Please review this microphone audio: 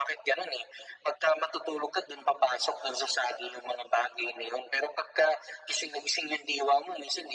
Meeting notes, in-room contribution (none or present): none